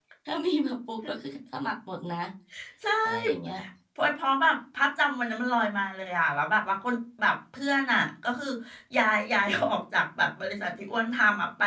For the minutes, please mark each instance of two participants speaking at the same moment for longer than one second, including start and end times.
none

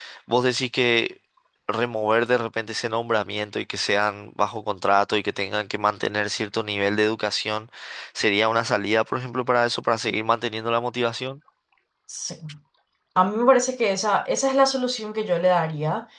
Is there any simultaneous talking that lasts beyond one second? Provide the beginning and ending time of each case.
none

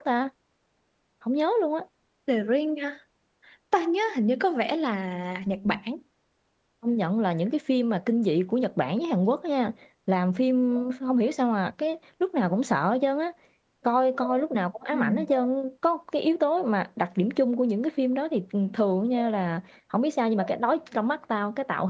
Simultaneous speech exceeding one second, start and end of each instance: none

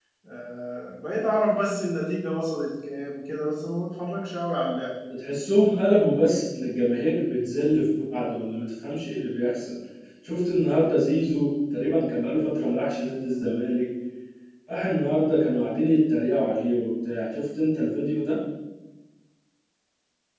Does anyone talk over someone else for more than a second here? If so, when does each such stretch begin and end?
none

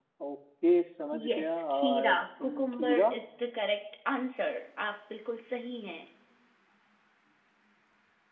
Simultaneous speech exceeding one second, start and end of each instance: 1.2-3.1

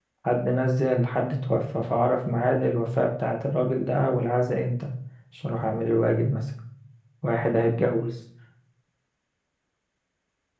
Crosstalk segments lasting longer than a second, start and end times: none

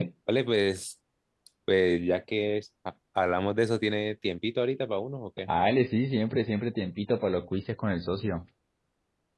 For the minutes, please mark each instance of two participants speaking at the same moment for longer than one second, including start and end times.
none

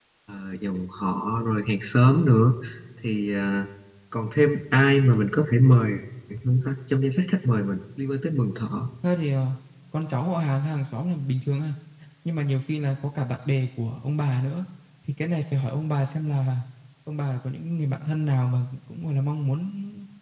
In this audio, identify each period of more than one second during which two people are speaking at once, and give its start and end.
none

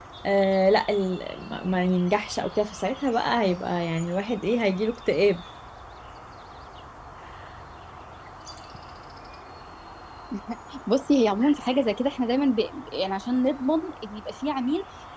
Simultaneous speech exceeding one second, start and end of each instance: none

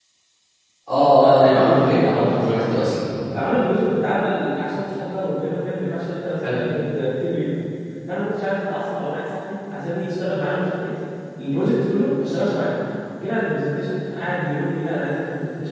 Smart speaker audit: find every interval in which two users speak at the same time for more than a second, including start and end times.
0.9-2.6

